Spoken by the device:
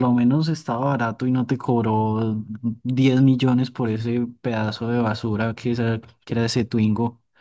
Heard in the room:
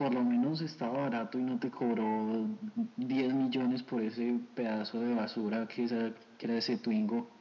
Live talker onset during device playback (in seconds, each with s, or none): none